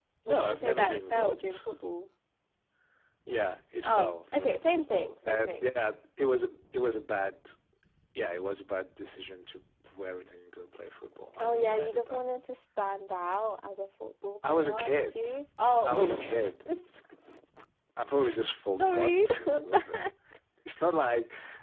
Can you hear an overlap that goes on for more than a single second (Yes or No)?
Yes